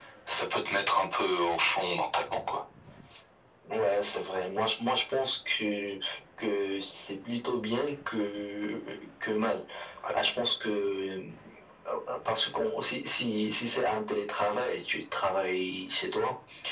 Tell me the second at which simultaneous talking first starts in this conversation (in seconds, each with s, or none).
none